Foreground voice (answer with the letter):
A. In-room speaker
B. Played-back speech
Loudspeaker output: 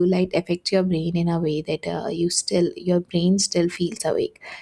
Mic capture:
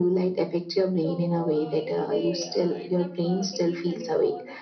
B